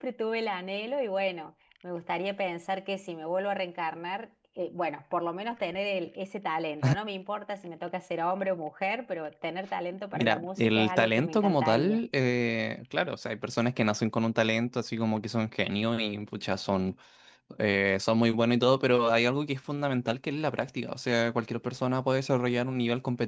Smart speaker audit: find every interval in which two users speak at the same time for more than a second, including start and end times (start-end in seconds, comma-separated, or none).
10.1-12.0